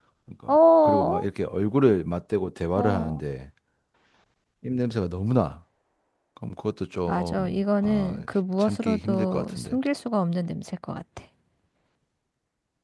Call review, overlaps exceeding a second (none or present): present